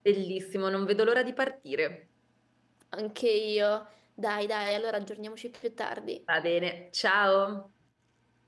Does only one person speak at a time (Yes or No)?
Yes